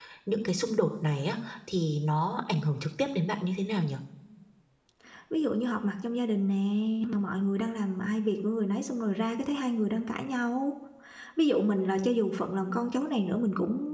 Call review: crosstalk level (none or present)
none